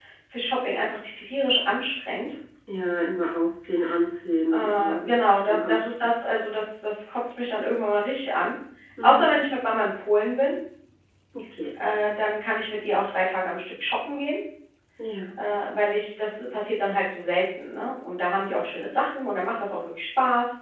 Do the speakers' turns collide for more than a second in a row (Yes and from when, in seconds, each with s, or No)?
Yes, from 4.5 s